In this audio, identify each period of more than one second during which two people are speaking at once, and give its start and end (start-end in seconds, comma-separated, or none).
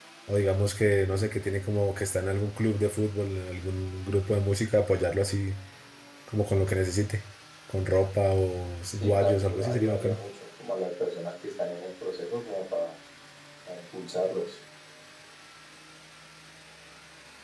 9.0-10.2